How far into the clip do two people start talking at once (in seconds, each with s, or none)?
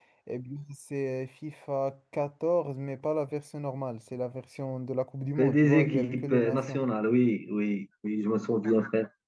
5.4 s